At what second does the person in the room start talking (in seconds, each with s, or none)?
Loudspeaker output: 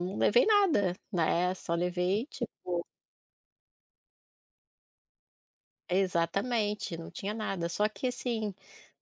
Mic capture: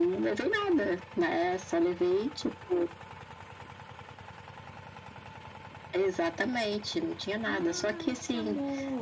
7.4 s